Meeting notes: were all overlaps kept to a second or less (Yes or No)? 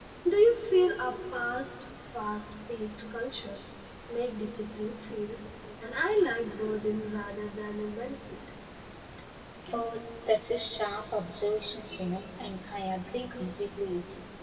Yes